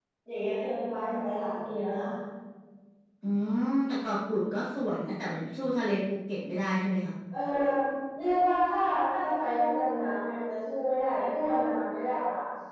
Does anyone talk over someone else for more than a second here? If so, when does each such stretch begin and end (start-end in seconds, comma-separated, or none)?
none